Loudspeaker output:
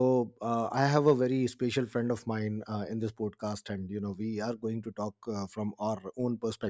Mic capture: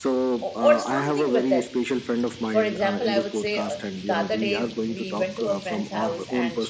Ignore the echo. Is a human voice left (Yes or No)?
Yes